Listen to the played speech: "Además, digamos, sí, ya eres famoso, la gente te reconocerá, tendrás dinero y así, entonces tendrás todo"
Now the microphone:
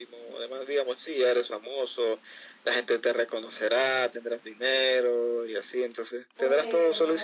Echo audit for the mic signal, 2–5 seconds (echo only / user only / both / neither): echo only